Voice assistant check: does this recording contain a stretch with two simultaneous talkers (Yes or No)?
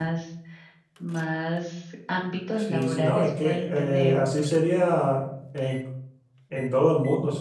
Yes